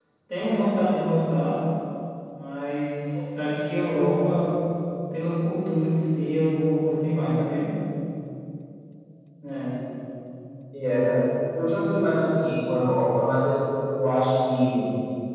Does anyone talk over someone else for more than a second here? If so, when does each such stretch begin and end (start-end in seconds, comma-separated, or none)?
none